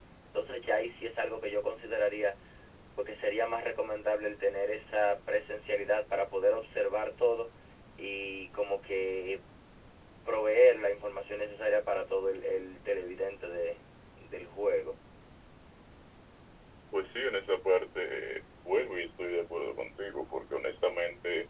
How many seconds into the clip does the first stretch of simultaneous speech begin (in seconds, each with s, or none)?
none